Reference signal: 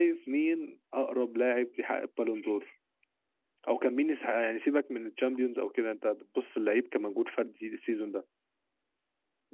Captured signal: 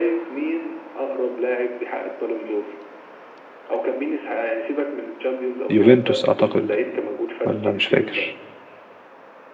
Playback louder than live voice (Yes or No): No